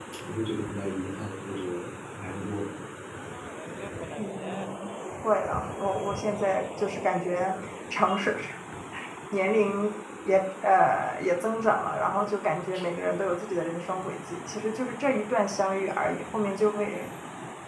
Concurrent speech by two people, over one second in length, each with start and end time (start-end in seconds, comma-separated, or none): none